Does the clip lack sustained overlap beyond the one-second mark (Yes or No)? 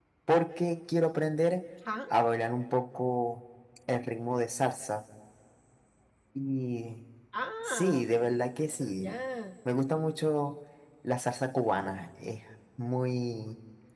Yes